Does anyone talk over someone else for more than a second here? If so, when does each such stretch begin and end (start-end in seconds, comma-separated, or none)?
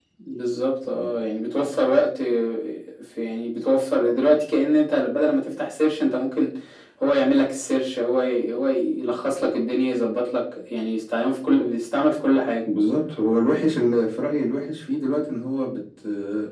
none